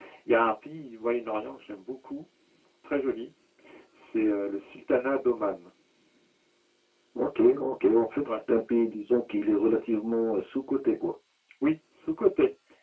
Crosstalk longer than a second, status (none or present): none